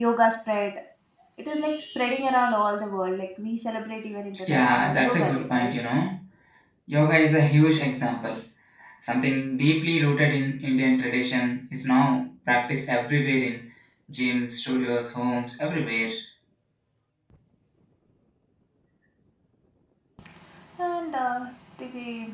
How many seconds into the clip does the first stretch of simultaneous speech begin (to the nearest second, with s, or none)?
4 s